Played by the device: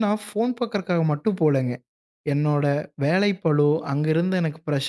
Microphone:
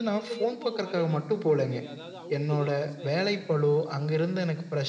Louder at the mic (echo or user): echo